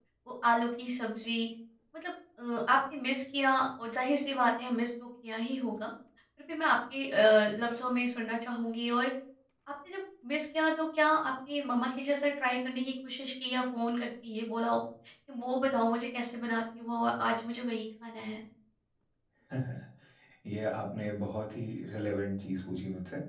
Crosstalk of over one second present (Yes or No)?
No